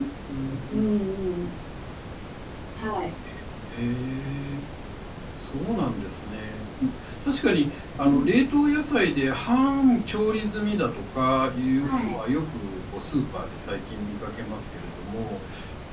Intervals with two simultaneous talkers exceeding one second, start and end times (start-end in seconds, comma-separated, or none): none